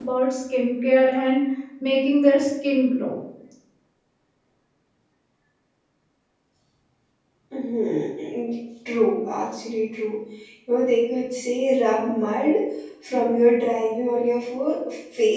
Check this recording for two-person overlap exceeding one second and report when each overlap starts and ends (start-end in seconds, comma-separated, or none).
none